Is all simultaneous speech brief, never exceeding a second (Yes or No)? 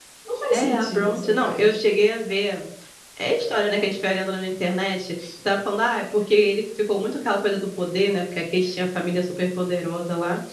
No